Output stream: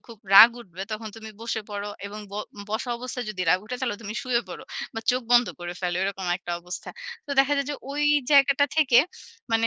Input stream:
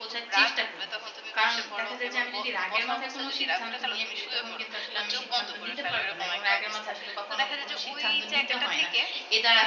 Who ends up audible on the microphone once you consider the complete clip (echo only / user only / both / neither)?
both